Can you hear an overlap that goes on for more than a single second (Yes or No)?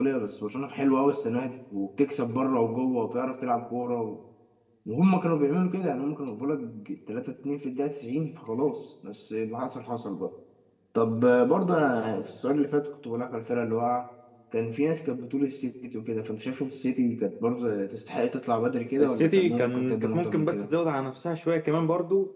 Yes